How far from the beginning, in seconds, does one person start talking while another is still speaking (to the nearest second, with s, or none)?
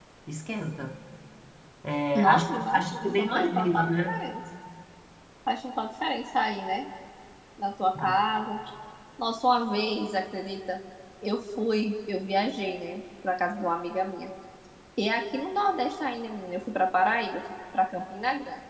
2 s